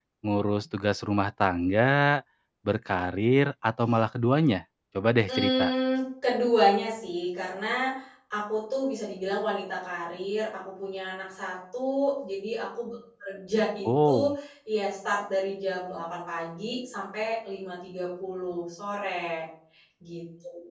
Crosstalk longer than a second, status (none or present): none